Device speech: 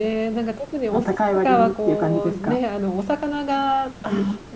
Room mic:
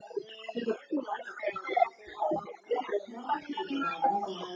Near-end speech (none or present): present